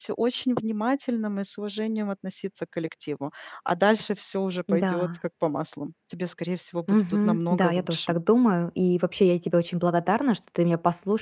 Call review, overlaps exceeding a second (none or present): present